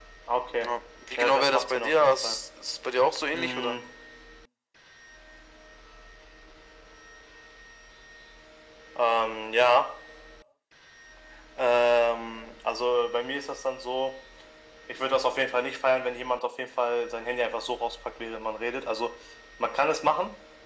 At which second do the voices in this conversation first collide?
1 s

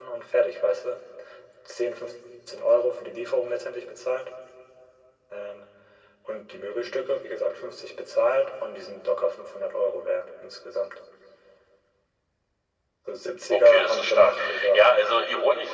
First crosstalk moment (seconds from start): 14 s

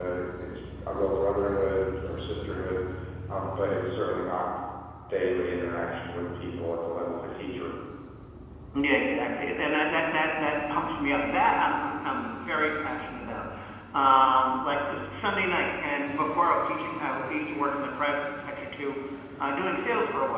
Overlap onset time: none

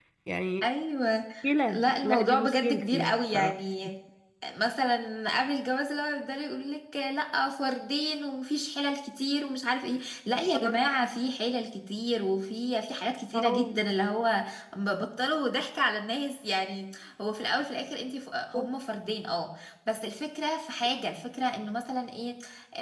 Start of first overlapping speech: 2 s

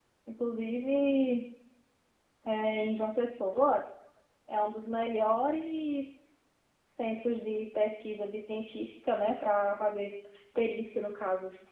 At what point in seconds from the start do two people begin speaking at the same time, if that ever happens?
none

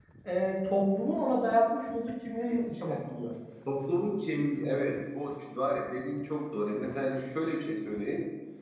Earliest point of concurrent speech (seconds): none

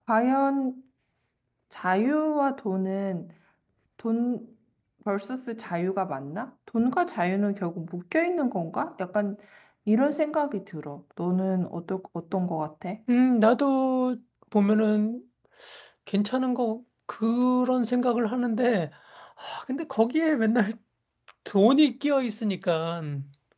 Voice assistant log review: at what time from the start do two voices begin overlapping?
none

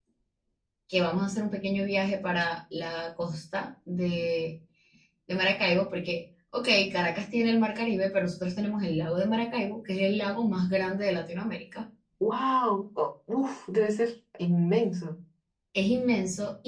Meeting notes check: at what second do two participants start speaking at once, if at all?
none

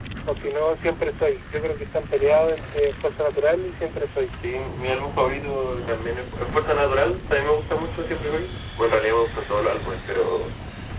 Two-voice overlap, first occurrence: none

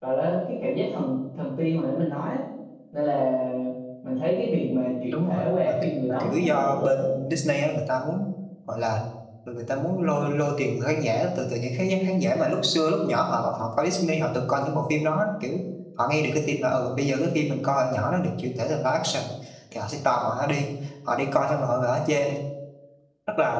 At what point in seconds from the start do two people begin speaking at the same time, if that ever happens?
5 s

